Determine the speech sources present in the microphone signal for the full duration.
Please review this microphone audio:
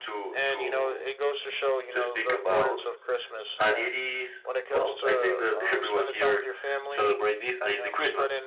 both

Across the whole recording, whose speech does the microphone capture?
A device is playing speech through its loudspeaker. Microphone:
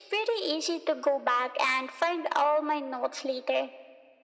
echo only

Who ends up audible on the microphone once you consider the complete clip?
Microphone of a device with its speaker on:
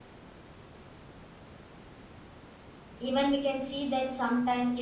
user only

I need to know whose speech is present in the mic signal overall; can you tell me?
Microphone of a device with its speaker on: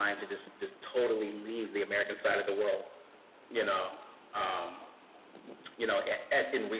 echo only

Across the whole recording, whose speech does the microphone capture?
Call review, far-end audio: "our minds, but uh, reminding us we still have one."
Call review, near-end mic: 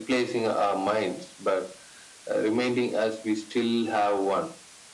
echo only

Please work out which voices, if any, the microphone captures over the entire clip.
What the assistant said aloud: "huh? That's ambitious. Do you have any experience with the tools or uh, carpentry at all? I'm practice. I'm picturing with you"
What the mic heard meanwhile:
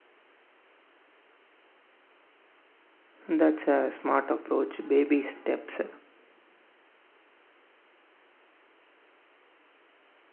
user only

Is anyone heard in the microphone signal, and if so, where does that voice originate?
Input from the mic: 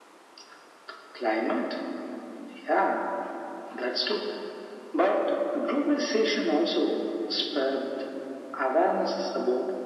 echo only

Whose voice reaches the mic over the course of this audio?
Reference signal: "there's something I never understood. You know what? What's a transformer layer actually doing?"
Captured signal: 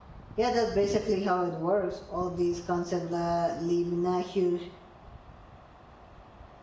user only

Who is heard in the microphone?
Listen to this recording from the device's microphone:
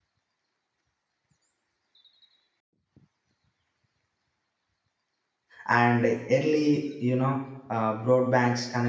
user only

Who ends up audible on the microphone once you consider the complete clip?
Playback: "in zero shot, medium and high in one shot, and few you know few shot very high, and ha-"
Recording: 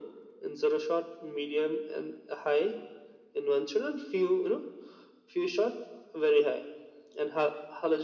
echo only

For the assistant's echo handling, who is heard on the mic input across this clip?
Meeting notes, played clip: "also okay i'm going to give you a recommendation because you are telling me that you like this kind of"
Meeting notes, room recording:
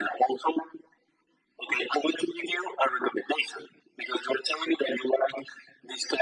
echo only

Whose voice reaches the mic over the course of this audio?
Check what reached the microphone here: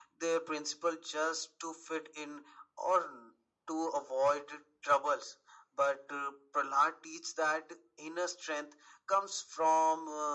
echo only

